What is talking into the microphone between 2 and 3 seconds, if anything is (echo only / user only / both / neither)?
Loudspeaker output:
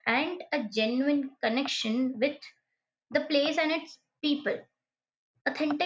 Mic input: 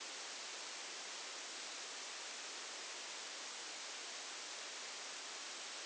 neither